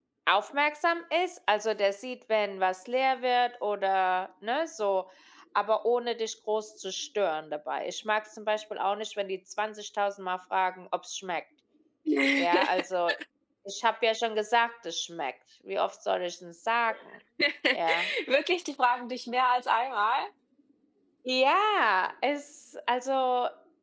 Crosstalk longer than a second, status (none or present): none